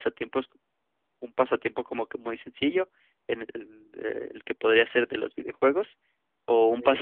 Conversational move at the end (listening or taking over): listening